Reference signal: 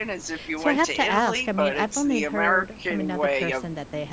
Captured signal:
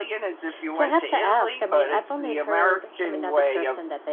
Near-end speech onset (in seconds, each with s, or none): none